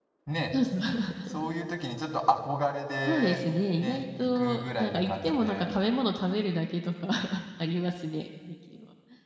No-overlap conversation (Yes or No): No